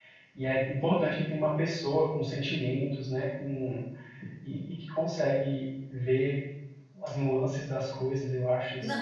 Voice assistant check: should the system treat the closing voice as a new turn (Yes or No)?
Yes